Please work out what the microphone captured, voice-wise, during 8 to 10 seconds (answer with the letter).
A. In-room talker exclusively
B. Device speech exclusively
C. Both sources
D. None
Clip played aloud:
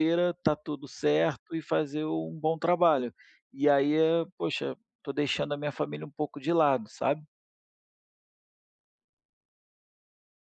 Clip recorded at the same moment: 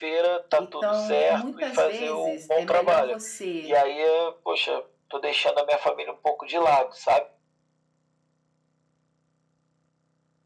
D